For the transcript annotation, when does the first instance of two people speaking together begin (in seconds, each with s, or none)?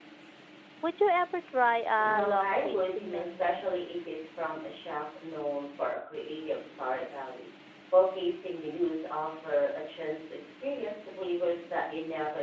2.0 s